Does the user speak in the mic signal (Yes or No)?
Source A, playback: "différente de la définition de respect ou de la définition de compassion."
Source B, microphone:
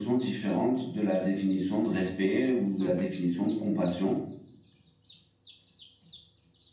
Yes